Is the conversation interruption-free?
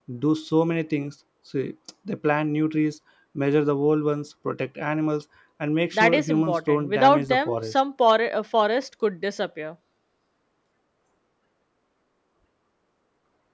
No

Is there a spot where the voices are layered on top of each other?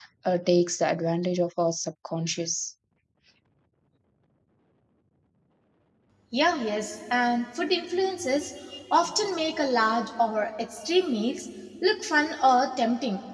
No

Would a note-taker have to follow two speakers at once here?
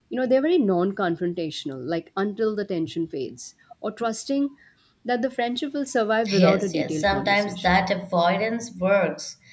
Yes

